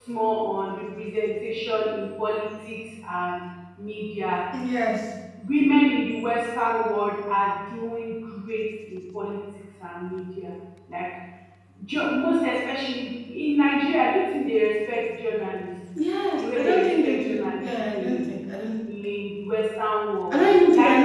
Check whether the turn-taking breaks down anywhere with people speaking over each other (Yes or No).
Yes